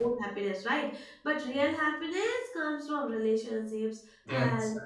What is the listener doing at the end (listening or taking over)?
listening